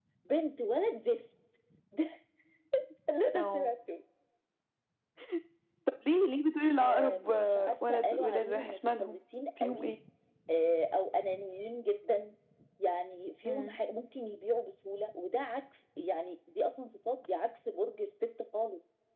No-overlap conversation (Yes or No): No